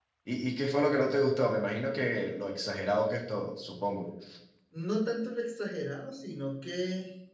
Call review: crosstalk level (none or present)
none